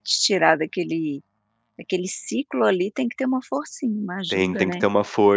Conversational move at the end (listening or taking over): taking over